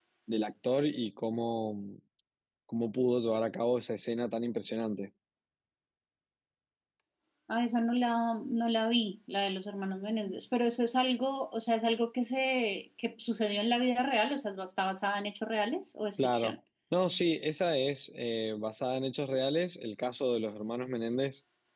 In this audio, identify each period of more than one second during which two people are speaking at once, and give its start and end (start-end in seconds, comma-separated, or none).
none